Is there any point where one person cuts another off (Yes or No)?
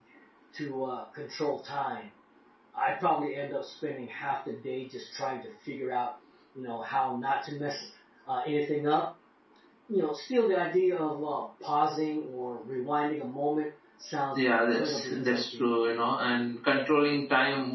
Yes